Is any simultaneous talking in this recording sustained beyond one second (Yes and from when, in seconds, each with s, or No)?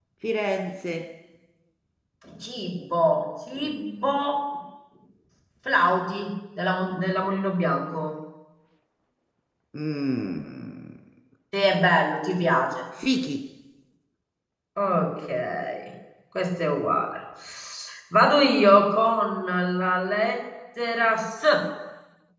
No